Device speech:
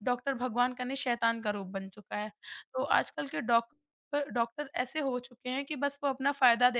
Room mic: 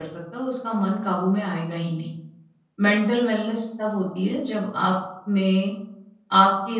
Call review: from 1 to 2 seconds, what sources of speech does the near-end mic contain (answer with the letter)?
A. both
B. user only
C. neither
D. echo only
B